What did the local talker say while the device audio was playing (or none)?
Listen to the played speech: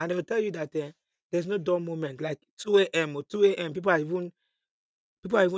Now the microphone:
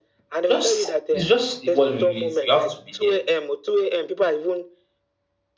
just it's just what it is. You have to be there.